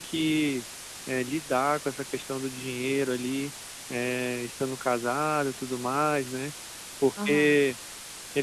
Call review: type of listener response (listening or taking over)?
listening